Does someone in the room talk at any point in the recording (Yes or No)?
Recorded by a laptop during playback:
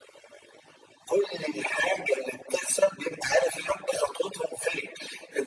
No